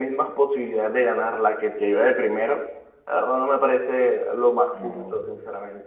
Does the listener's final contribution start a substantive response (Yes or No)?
Yes